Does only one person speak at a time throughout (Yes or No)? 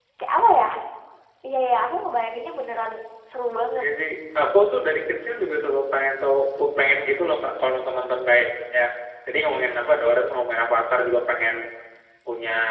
Yes